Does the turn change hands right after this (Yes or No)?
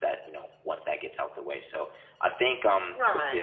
Yes